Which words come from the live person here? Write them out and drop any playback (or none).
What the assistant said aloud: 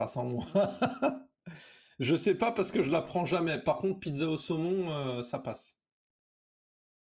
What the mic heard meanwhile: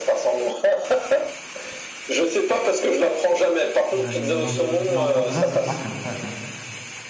ouais, moz non, mozza, c'est pas crème fraîche, hein.